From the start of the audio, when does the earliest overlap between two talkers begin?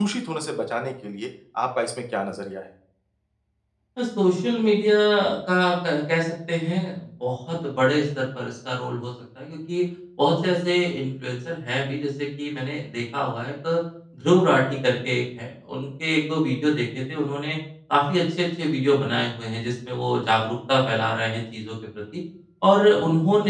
none

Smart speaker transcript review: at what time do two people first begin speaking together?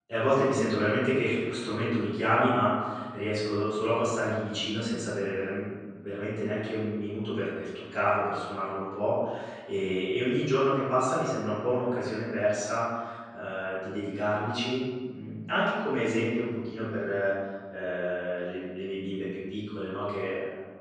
none

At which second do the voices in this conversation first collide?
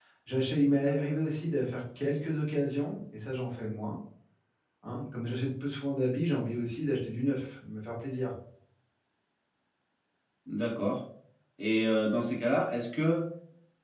none

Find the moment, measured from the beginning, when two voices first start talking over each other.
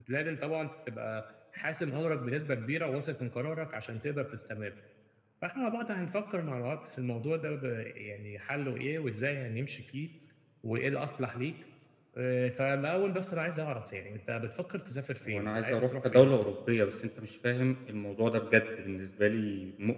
15.2 s

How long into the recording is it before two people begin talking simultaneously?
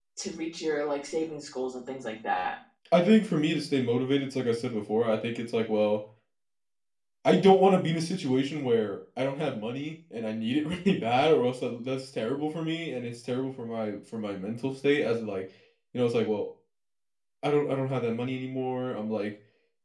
none

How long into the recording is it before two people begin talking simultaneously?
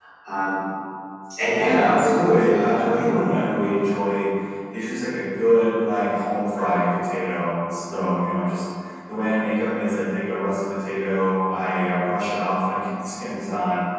1.6 s

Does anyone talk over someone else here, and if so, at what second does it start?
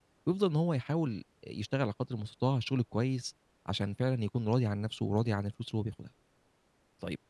none

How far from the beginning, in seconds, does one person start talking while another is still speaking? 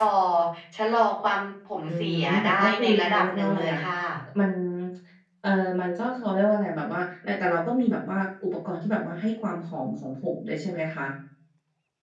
1.9 s

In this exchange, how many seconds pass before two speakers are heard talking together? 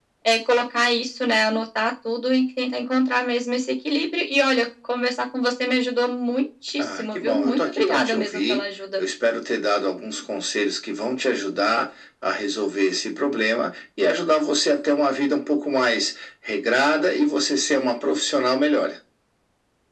6.8 s

